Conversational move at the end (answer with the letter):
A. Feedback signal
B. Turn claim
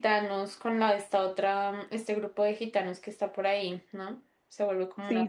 B